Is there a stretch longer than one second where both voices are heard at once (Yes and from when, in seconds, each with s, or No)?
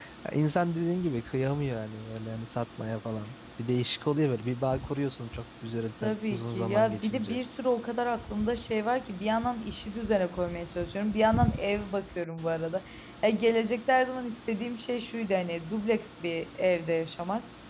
Yes, from 6.0 s